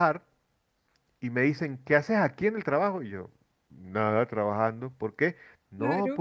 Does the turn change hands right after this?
No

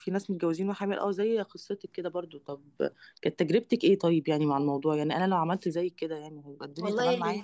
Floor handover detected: Yes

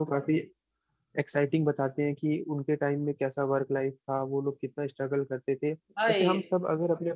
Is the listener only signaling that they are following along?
Yes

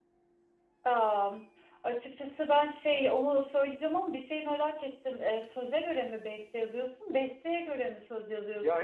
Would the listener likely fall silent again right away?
No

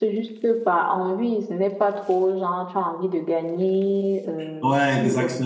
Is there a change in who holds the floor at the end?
No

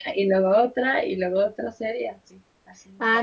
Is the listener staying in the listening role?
No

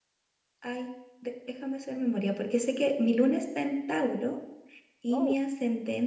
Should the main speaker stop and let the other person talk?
No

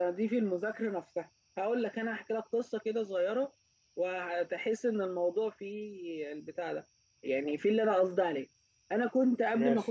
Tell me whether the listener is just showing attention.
Yes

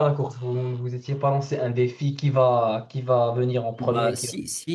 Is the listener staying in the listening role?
No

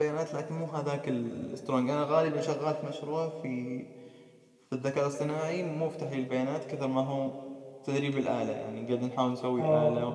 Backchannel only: No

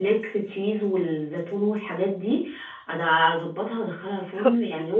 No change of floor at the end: No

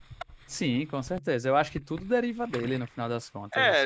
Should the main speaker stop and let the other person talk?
Yes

